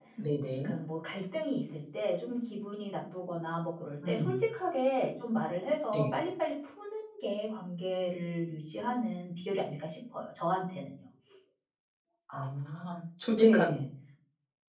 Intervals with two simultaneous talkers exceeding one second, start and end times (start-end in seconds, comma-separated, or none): none